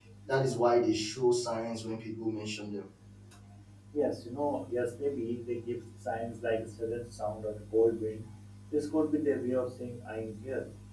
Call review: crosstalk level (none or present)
none